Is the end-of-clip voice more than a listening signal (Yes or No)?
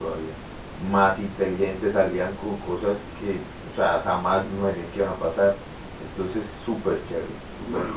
Yes